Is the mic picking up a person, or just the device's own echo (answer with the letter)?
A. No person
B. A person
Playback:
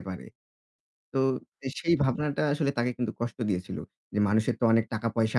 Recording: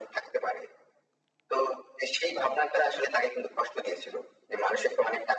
A